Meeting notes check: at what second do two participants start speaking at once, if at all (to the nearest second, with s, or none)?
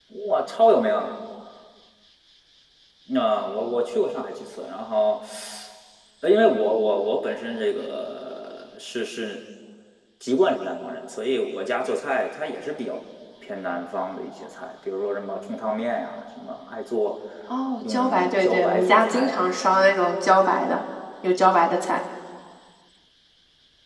18 s